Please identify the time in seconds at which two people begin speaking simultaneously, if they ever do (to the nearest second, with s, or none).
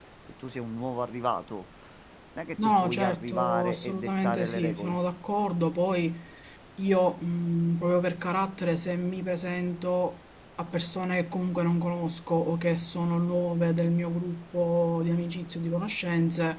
3 s